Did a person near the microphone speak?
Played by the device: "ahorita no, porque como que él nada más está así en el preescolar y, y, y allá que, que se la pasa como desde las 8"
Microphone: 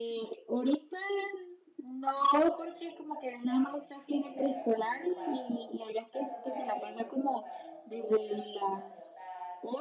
Yes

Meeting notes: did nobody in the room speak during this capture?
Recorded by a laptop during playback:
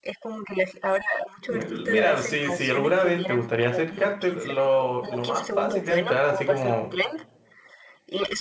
No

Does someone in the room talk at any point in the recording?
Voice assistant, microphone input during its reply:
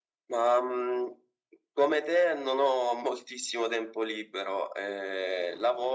No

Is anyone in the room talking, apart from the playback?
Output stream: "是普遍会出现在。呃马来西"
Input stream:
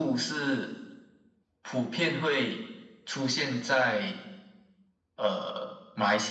No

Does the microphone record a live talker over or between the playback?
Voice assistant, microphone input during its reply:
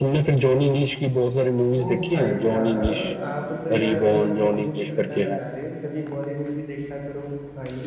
Yes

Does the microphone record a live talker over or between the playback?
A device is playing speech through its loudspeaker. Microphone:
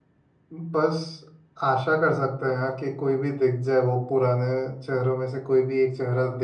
Yes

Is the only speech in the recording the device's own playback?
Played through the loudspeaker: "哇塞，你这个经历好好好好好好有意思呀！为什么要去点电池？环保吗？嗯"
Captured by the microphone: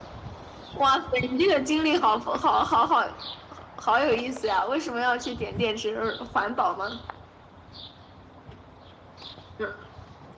Yes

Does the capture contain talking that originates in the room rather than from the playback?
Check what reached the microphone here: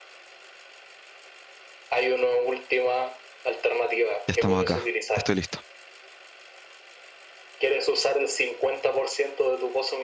Yes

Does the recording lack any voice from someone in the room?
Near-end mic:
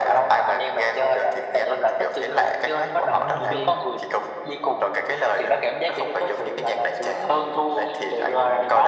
No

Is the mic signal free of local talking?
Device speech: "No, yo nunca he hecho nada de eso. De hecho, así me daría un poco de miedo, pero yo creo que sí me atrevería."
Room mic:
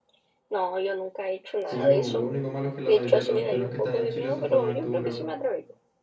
No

